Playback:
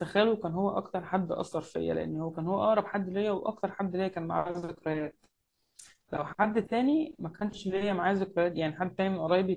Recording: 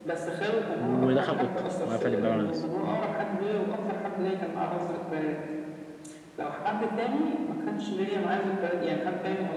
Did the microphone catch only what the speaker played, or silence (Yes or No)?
No